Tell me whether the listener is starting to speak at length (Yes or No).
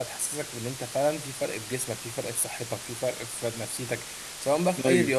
No